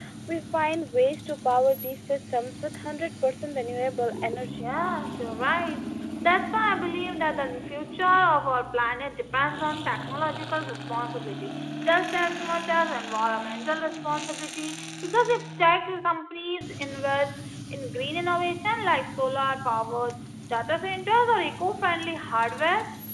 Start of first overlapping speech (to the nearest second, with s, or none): none